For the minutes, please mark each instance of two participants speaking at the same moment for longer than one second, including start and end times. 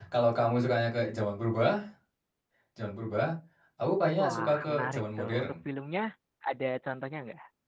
4.2-5.5

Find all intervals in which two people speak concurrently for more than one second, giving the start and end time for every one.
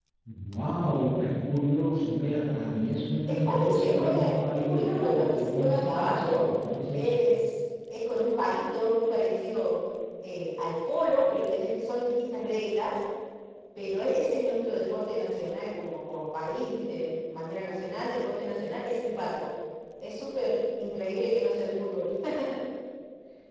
3.3-6.4

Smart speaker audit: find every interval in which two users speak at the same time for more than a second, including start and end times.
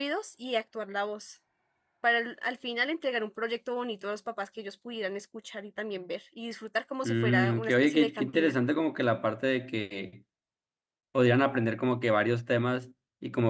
7.0-8.5

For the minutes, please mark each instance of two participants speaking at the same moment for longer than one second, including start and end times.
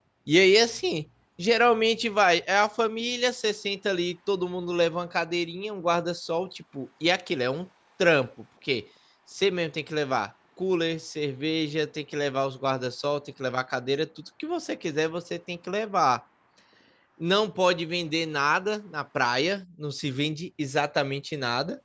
none

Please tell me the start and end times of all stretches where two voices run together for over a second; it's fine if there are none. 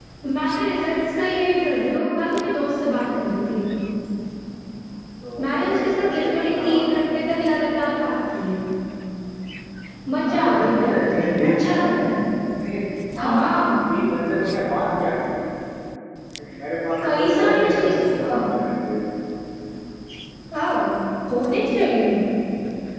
5.4-6.8, 10.2-11.8, 17.0-18.4

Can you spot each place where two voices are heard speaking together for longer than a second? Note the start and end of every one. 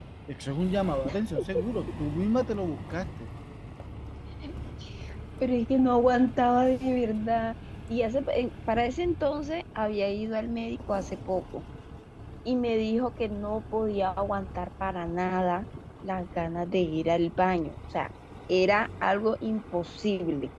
none

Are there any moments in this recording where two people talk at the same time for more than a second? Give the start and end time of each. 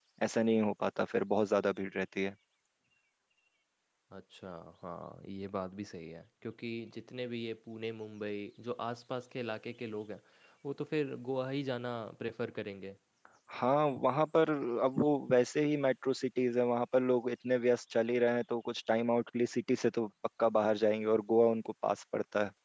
none

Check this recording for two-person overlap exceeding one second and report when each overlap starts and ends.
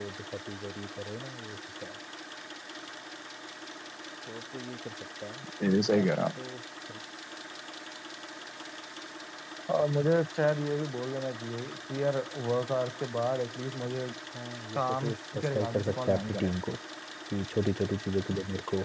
14.8-16.5

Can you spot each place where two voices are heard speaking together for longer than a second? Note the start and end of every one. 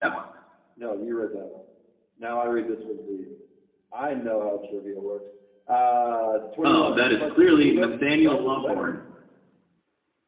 6.6-8.8

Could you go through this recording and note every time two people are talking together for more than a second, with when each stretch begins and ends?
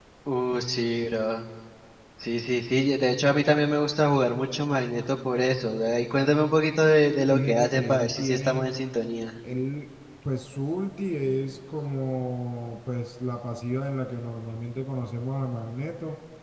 7.3-8.6

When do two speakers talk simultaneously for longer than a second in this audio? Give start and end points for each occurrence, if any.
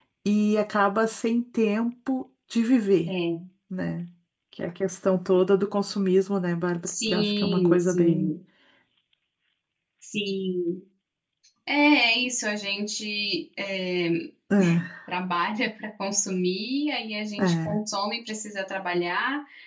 6.8-8.3

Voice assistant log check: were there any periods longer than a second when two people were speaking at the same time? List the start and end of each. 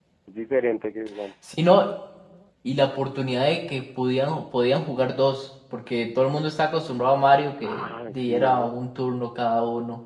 7.6-8.8

